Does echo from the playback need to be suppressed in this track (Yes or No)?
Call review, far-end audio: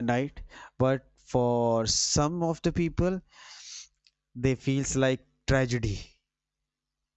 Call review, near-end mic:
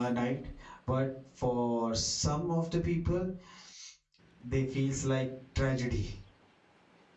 Yes